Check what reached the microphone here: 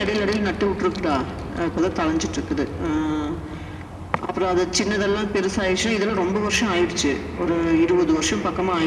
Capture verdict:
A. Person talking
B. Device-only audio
B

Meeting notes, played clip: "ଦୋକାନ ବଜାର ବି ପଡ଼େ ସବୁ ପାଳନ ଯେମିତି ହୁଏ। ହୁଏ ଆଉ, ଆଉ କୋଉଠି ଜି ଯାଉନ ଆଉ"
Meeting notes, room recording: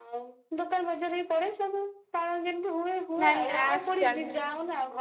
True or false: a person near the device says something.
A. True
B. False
A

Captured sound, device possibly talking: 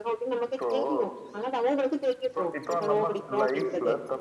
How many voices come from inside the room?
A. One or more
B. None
A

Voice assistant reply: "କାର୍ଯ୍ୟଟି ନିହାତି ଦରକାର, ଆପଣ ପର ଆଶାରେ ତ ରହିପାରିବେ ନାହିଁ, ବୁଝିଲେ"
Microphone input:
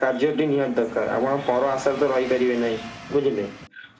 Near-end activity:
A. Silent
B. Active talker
A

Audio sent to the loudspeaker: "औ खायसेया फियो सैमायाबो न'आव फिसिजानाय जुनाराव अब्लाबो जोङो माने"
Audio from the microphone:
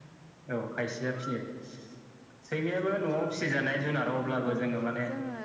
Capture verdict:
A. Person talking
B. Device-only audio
A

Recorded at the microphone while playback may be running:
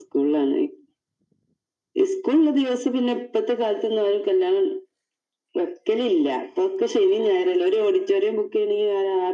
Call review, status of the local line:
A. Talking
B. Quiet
B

